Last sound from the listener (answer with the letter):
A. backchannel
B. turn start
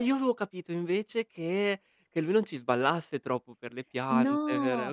B